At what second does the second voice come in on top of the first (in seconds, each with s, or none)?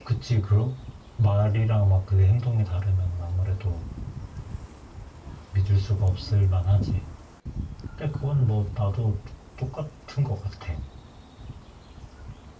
none